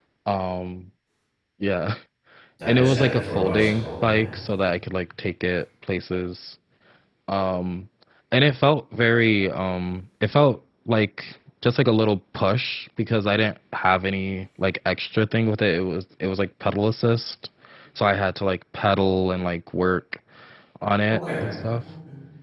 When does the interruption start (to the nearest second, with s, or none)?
3 s